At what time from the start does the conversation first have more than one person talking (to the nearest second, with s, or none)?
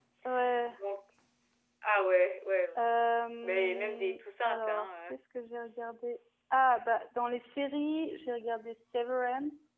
3 s